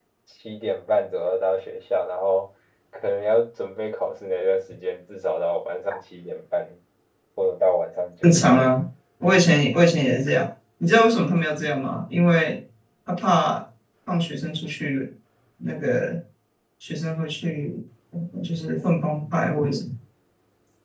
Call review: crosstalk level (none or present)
none